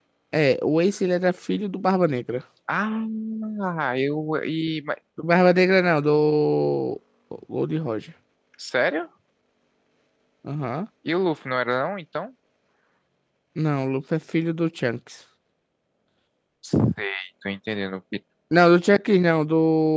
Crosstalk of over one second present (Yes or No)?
No